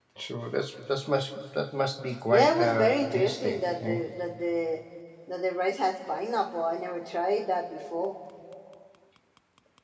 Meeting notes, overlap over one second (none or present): present